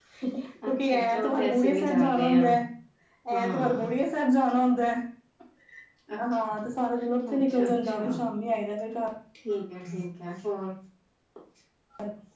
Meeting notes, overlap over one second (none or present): present